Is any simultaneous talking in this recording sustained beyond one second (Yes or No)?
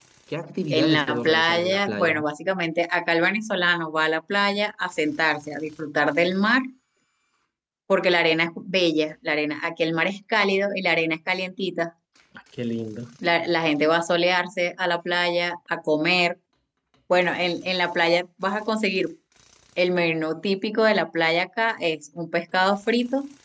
Yes